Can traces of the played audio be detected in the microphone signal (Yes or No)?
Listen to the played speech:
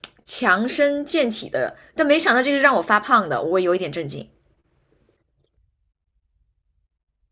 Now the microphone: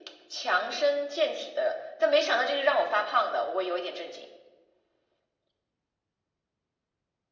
Yes